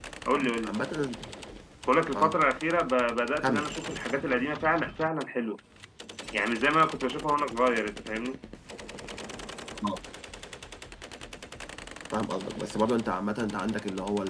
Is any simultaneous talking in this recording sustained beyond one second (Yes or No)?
No